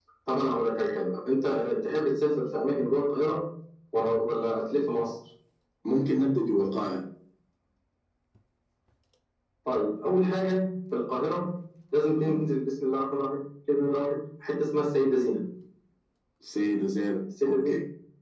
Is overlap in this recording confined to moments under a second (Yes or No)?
Yes